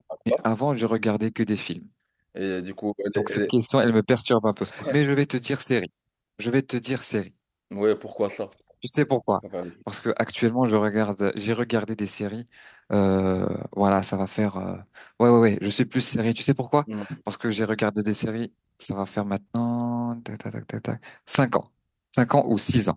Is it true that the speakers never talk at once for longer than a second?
Yes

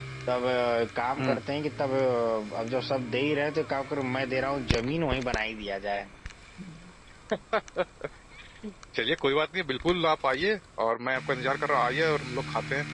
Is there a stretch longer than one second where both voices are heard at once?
No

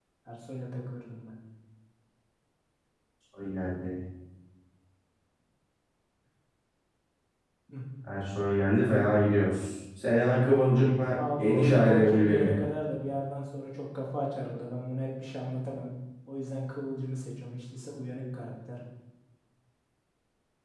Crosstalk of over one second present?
Yes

